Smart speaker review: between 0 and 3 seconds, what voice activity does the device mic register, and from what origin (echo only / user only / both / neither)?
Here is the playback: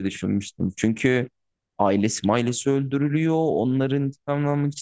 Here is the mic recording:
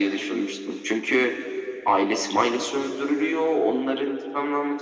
echo only